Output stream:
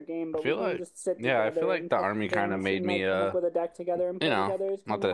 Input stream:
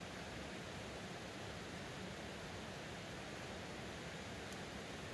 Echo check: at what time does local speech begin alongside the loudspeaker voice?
none

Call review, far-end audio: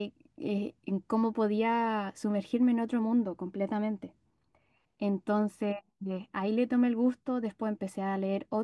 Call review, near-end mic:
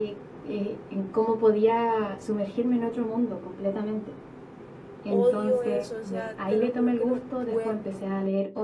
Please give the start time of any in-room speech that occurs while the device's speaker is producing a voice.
5.0 s

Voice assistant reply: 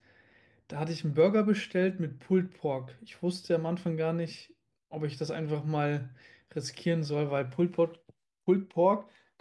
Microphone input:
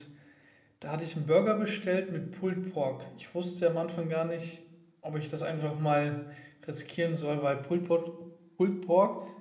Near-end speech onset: none

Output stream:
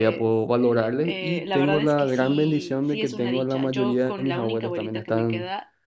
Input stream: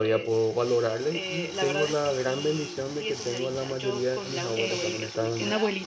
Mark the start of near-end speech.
4.5 s

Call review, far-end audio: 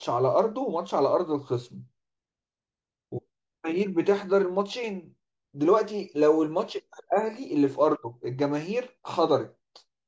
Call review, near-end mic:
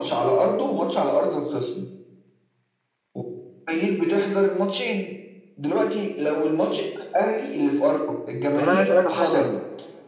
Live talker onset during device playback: 8.5 s

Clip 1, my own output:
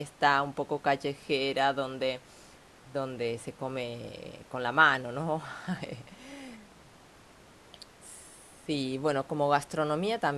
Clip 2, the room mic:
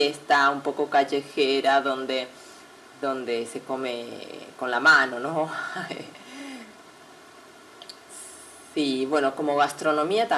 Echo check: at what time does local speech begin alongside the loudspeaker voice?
none

